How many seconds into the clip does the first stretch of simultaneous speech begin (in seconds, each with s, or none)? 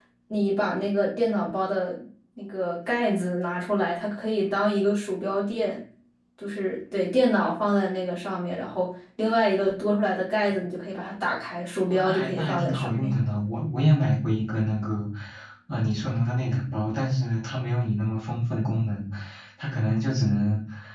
11.9 s